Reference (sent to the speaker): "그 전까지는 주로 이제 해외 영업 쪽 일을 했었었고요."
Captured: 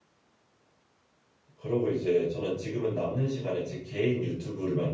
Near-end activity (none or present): present